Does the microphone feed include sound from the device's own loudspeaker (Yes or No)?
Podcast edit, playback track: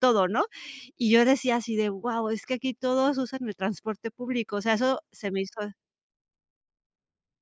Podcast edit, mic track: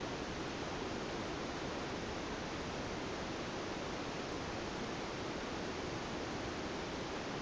No